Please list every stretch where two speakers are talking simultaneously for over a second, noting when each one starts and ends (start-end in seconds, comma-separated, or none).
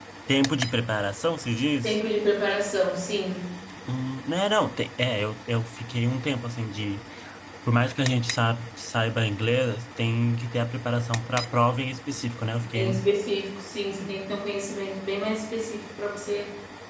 none